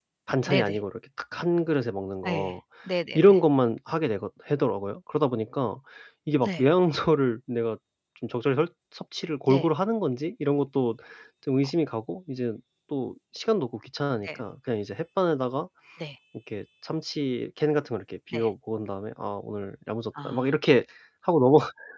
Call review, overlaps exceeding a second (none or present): none